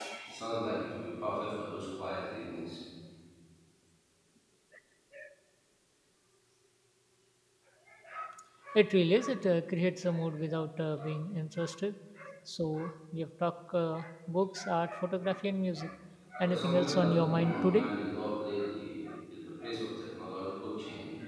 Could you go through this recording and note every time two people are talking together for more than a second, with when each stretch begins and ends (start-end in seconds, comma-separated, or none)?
16.4-17.9